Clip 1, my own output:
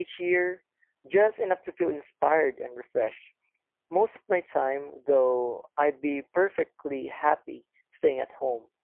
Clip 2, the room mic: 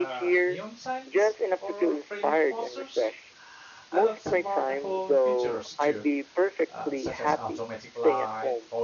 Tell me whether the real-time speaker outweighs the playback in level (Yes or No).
No